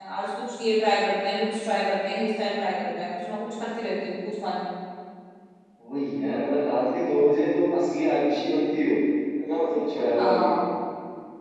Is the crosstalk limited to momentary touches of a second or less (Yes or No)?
Yes